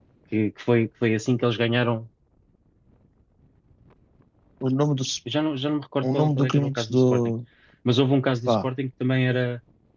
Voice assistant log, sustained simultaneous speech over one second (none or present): present